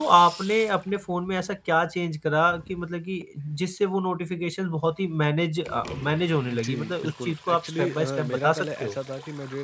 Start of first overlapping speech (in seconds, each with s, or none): 6.5 s